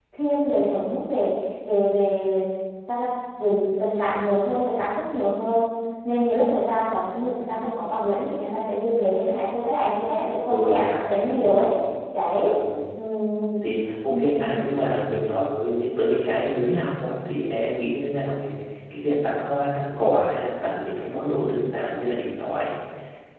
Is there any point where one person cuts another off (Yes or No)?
Yes